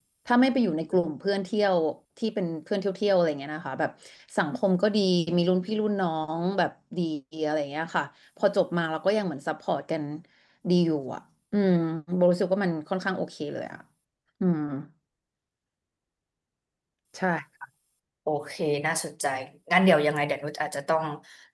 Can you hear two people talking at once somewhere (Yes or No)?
No